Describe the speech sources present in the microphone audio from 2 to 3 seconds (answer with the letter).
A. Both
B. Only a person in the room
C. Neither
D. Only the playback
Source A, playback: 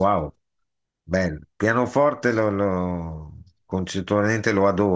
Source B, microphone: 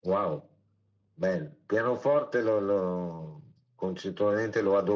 D